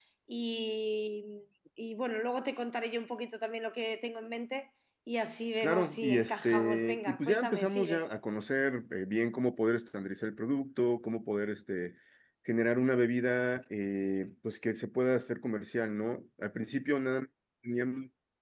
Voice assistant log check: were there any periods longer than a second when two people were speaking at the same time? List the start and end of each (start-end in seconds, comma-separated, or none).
5.6-8.0